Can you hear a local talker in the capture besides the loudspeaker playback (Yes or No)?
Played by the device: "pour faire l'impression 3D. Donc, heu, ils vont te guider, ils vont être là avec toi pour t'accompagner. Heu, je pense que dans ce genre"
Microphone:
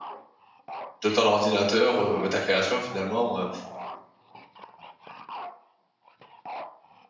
Yes